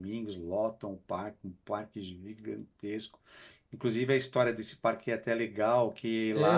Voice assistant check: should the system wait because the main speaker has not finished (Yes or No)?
No